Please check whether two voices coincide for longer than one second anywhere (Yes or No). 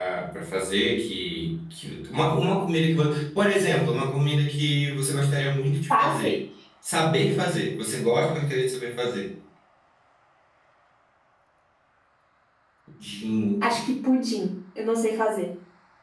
No